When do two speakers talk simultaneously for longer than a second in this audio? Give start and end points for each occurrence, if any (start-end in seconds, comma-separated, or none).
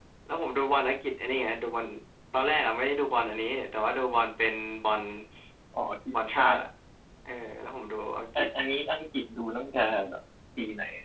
none